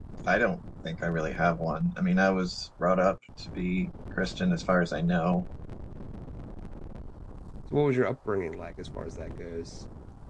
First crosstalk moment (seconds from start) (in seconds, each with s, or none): none